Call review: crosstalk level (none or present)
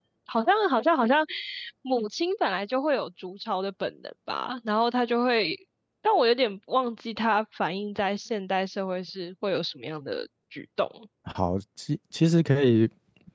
none